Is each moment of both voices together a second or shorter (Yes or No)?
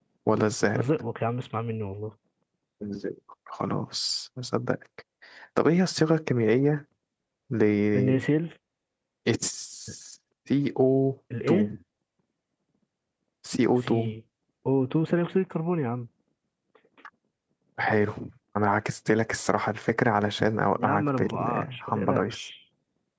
No